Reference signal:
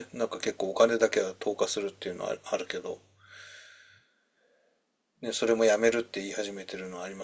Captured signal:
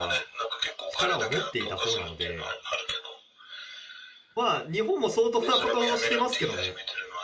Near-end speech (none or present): present